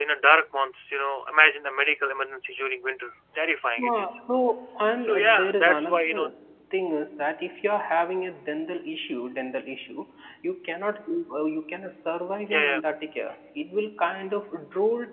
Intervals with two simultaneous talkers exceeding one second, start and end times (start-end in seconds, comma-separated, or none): 5.0-6.3